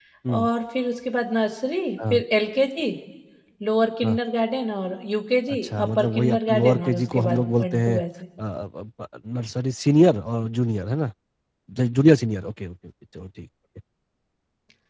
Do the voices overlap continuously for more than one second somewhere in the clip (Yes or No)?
Yes